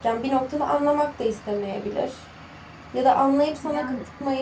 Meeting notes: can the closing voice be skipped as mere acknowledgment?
Yes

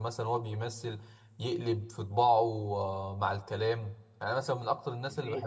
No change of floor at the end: Yes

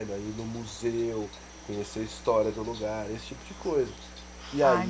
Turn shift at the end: Yes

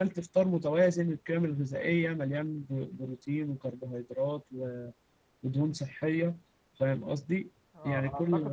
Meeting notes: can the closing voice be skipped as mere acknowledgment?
No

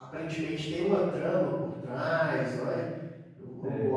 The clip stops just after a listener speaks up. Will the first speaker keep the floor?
Yes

